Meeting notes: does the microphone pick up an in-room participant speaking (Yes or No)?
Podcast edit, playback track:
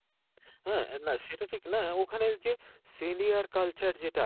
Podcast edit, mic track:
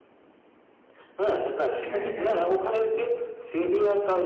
Yes